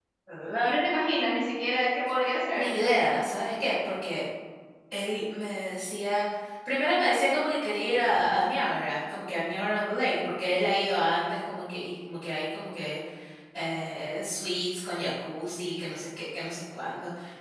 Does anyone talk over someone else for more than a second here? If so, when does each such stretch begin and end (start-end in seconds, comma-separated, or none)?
none